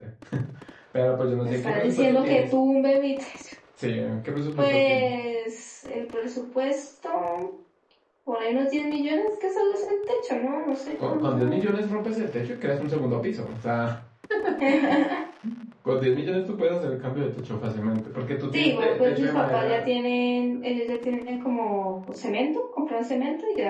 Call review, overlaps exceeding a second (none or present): present